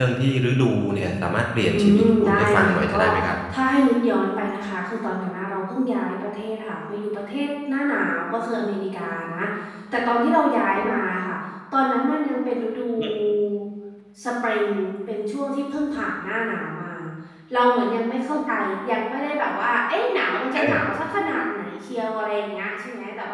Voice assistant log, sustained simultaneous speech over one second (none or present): present